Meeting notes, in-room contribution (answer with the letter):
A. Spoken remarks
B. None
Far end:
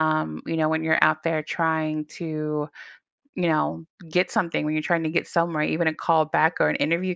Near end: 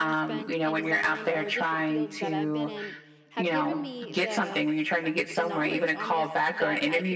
A